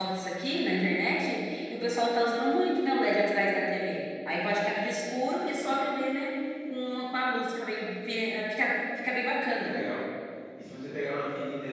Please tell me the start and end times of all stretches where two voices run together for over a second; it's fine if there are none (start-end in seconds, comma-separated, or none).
none